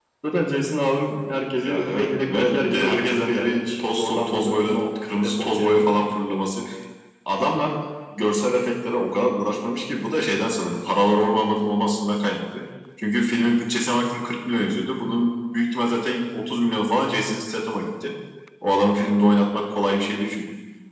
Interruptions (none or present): present